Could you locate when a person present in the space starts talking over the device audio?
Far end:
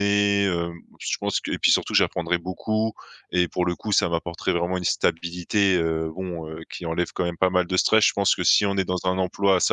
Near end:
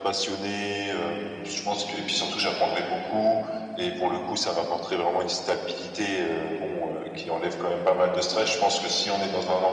none

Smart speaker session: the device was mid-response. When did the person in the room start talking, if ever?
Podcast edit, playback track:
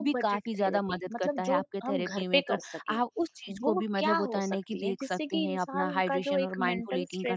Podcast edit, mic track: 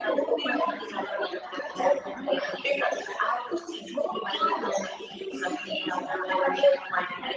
none

